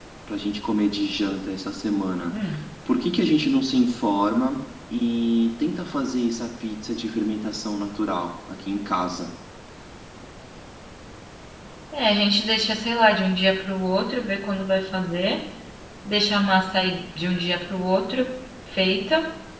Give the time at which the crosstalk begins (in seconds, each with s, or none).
none